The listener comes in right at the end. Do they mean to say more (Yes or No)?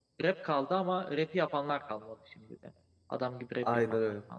Yes